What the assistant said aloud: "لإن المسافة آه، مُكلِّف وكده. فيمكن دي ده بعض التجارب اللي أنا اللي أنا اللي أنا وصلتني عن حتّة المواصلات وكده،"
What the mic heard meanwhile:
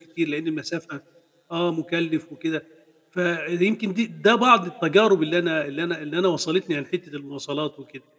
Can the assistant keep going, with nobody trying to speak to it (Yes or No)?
Yes